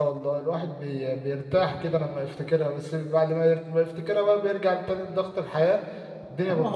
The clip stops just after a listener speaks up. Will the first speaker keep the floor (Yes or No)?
No